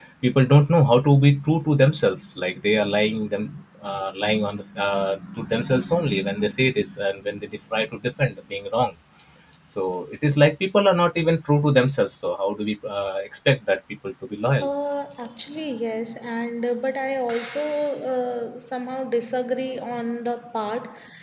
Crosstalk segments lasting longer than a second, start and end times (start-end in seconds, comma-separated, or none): none